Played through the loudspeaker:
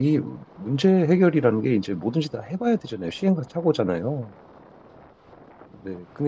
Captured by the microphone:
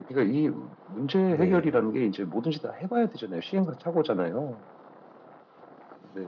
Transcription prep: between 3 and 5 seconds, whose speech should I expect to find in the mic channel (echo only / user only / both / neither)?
echo only